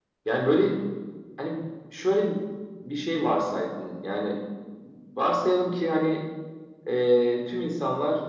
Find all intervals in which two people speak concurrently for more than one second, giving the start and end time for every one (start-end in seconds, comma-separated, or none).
none